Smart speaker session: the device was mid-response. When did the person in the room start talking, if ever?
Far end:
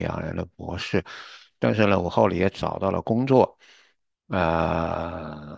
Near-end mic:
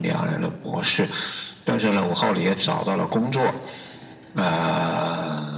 none

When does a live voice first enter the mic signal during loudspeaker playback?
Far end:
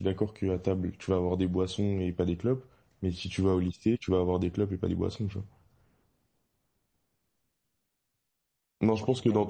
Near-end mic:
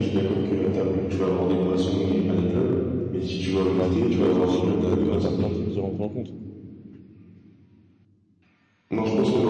3.8 s

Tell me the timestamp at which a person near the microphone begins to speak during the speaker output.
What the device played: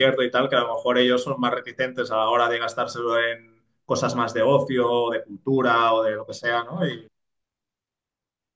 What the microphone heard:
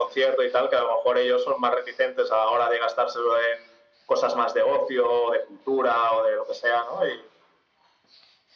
none

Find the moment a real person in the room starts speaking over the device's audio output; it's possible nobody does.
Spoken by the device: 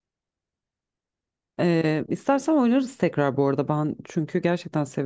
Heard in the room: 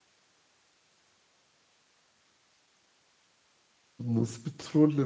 4.0 s

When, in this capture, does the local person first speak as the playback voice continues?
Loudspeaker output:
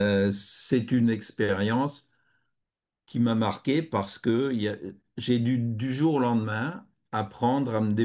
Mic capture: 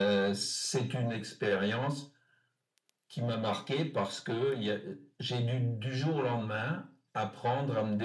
none

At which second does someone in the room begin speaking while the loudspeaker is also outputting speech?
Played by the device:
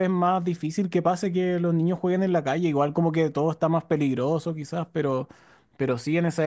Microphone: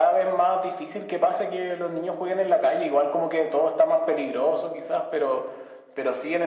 none

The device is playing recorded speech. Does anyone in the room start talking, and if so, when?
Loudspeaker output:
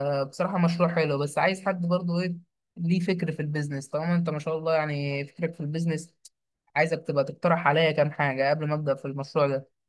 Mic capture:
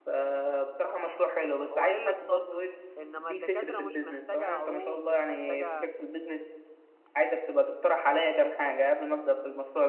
1.7 s

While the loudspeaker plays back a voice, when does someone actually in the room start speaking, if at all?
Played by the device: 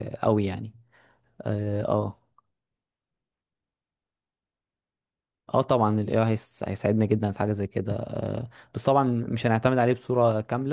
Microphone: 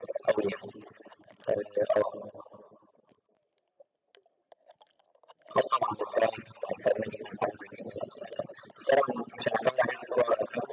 none

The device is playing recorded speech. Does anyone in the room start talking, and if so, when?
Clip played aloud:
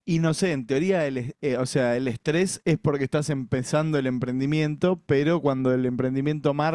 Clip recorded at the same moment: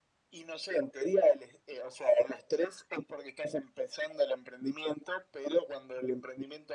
none

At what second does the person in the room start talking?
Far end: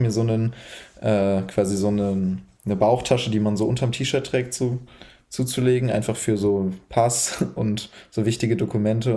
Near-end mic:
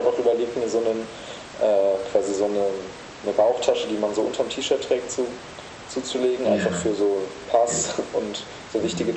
6.4 s

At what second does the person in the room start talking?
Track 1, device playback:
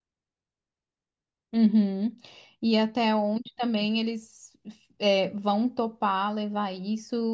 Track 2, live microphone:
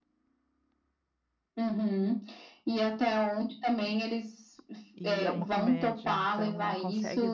5.0 s

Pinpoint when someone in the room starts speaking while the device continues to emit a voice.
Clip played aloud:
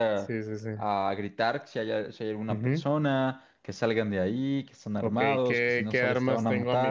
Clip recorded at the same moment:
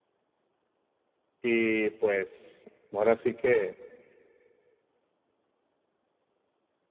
1.4 s

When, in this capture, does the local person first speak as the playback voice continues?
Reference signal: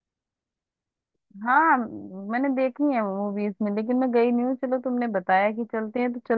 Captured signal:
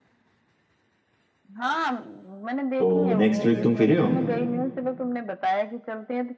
2.8 s

